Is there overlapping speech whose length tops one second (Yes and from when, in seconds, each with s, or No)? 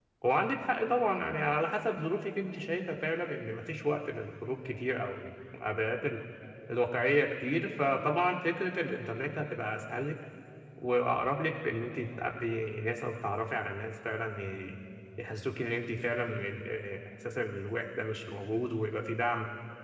No